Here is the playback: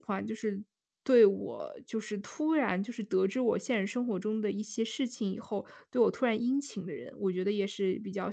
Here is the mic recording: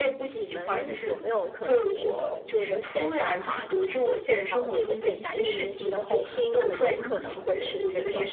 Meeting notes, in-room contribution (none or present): present